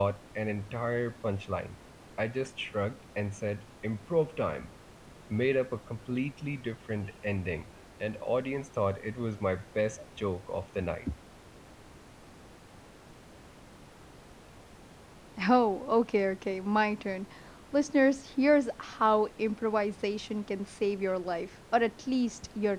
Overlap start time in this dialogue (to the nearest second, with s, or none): none